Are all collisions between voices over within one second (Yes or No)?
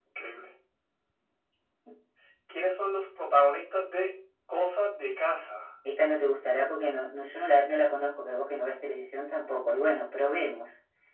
Yes